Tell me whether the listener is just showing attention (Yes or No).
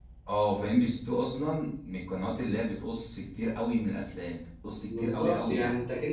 No